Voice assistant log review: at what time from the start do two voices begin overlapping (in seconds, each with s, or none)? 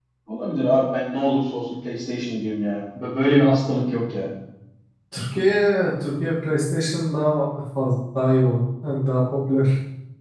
none